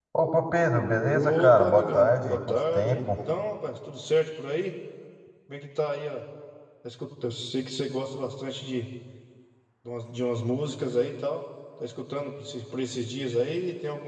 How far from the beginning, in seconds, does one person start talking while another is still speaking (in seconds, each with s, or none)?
1.2 s